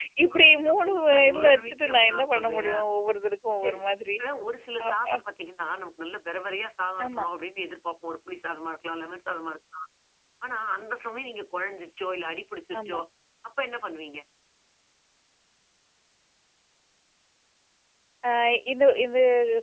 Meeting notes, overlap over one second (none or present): present